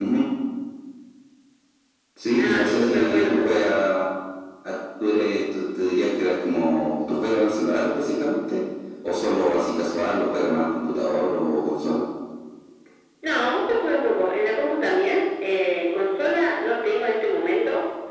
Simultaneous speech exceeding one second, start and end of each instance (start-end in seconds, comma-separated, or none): 2.4-3.9